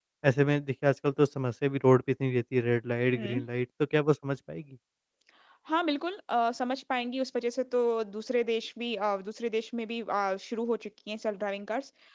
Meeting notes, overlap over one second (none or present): none